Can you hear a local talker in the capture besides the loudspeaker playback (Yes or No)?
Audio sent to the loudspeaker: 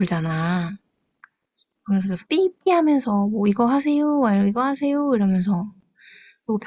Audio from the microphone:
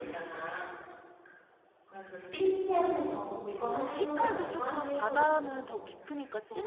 Yes